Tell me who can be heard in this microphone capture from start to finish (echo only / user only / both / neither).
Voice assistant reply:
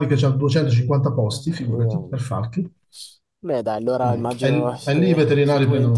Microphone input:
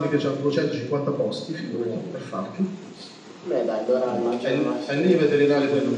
echo only